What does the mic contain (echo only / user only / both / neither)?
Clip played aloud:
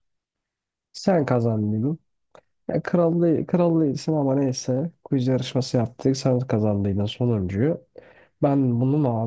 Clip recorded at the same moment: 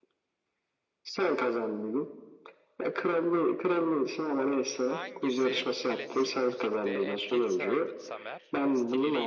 both